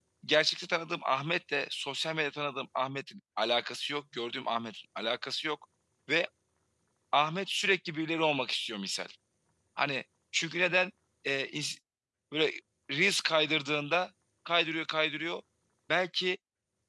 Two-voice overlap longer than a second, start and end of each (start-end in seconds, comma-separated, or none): none